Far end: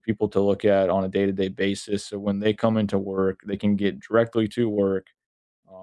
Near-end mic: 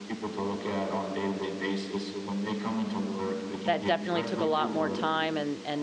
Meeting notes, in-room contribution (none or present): present